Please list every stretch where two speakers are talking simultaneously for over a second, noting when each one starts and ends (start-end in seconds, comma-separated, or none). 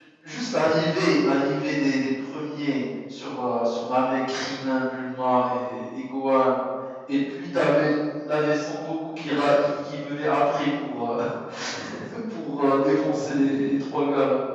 none